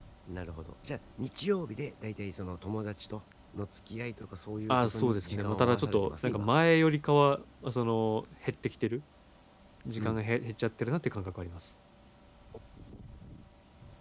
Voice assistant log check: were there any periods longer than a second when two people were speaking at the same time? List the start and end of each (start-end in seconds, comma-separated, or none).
4.7-6.5